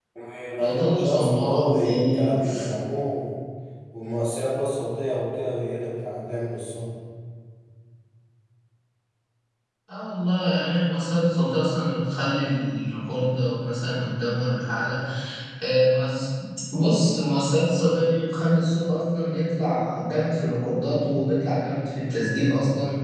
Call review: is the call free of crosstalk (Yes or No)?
No